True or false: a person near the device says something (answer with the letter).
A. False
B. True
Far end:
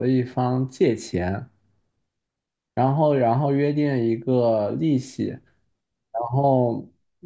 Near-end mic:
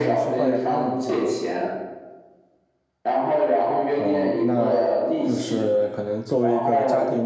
B